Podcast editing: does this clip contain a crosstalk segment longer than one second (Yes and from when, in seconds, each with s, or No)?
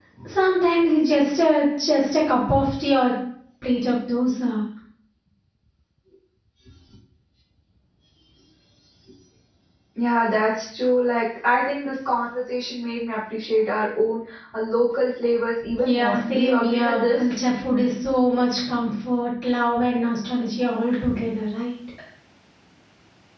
Yes, from 15.8 s